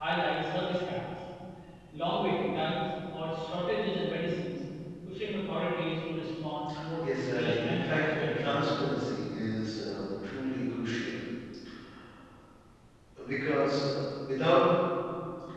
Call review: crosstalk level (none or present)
present